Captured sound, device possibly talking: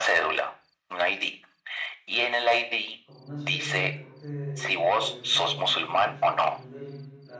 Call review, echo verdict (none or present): present